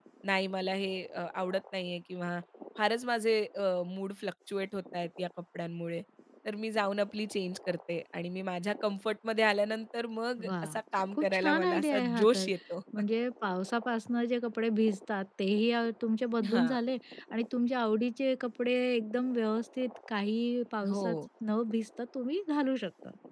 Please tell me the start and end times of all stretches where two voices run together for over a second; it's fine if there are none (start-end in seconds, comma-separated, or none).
11.1-12.5